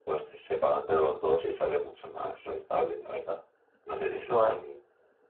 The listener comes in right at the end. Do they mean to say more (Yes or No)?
No